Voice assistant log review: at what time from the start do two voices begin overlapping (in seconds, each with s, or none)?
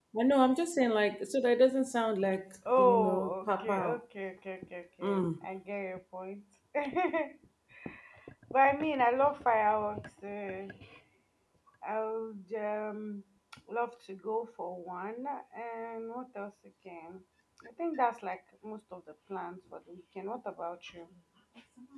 2.7 s